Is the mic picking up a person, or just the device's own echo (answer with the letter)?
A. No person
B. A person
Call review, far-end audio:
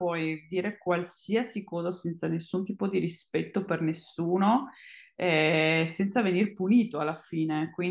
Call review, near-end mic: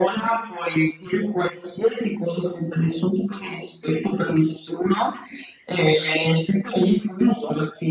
A